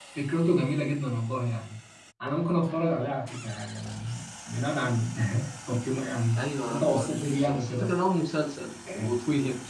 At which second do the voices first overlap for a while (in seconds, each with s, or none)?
6.4 s